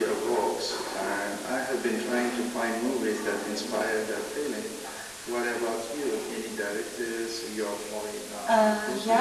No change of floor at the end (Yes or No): No